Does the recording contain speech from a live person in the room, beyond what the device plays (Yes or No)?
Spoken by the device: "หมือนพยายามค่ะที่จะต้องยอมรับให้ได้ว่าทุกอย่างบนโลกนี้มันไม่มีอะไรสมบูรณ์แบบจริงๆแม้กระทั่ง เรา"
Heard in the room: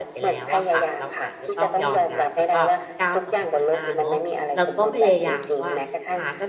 Yes